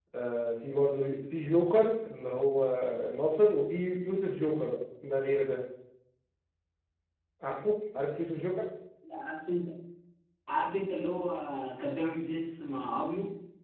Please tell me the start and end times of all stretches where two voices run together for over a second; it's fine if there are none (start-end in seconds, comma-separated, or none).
none